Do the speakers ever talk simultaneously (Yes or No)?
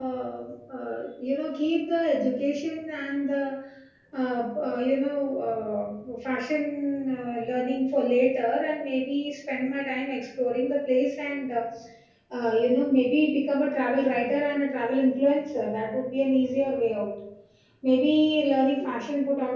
No